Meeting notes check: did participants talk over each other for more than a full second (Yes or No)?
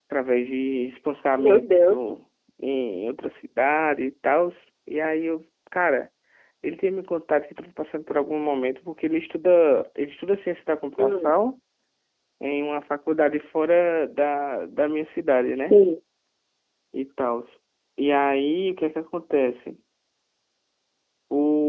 No